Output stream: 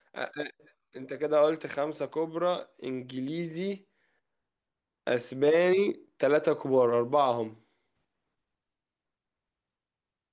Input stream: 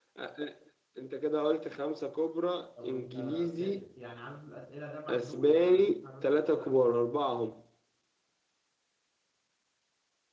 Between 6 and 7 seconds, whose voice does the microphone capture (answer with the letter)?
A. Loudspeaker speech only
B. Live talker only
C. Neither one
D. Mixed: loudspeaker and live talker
D